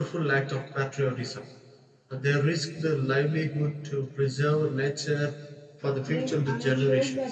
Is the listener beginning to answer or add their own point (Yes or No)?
Yes